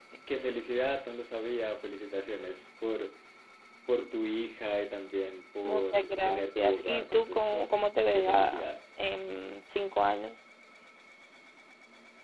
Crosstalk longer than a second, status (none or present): present